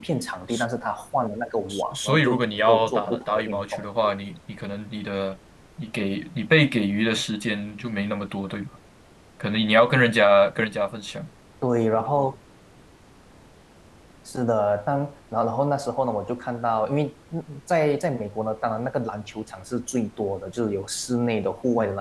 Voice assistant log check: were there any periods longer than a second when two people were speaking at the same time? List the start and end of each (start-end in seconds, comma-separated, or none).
1.7-3.8